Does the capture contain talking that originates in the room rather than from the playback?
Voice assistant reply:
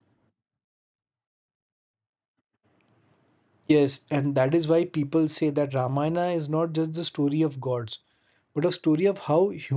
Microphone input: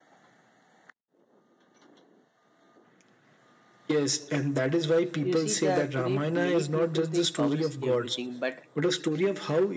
Yes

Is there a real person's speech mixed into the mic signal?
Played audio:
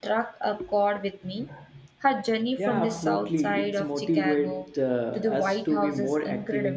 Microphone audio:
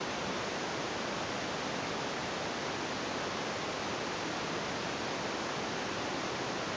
No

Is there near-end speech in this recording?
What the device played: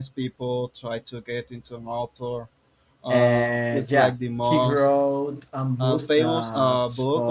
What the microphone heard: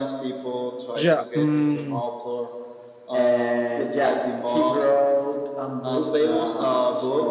Yes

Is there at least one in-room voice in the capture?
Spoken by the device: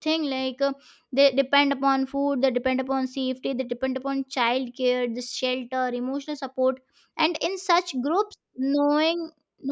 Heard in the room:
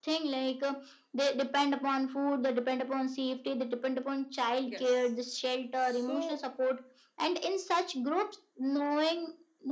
Yes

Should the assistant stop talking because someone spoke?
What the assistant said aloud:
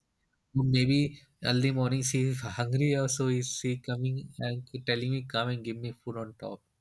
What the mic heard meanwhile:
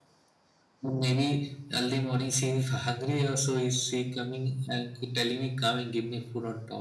No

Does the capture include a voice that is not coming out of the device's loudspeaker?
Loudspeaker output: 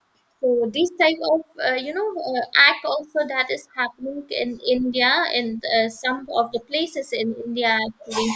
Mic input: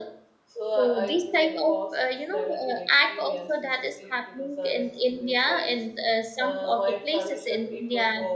Yes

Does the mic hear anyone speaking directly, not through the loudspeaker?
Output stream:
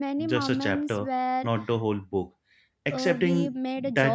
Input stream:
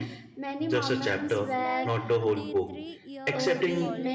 Yes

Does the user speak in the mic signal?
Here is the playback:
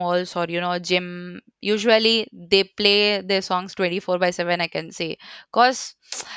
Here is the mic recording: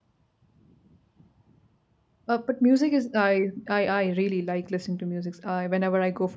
Yes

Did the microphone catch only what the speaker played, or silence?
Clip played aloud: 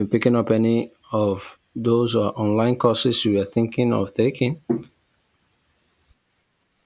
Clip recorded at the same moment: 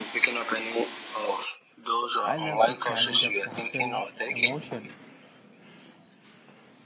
No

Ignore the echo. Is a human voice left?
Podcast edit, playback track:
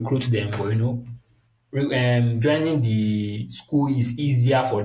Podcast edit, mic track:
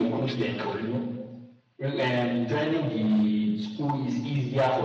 No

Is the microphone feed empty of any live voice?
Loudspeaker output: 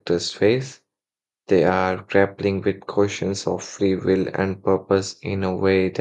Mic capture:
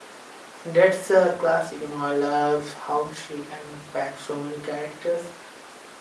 No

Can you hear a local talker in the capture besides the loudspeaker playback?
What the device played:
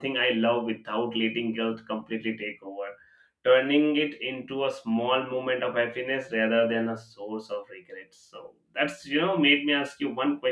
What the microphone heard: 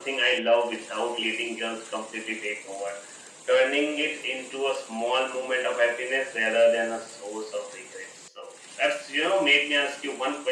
No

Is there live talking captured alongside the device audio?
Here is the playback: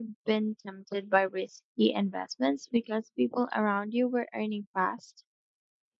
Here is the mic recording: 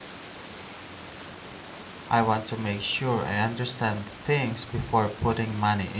Yes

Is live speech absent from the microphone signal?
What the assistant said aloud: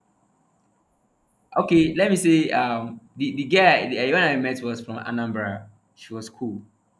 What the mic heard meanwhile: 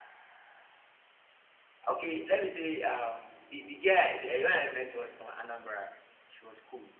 Yes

